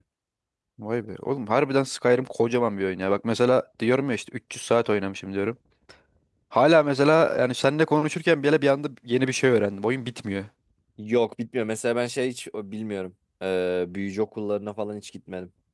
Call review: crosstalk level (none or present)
none